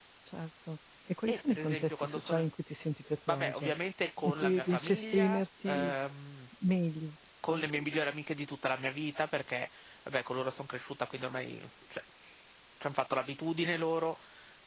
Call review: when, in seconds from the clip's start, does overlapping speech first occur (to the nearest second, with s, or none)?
1 s